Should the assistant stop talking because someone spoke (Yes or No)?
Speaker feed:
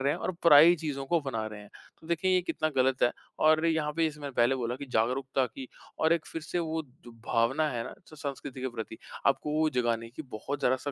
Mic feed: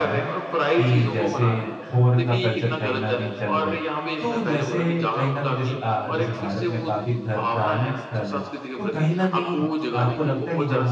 Yes